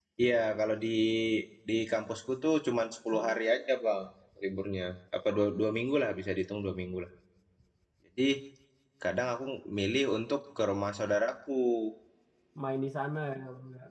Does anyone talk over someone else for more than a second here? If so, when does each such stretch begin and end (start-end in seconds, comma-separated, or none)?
none